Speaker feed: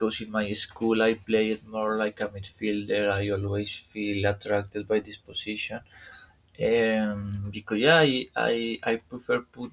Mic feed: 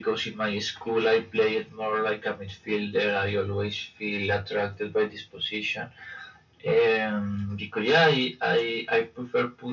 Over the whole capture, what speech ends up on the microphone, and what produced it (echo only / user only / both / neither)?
echo only